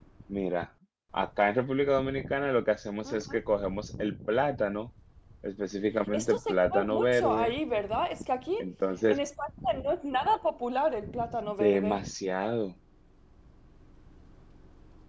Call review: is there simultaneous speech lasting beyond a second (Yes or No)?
Yes